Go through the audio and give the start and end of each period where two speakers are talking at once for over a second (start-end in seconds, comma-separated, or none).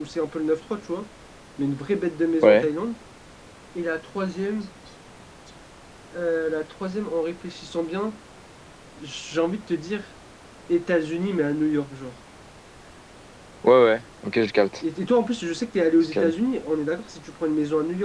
none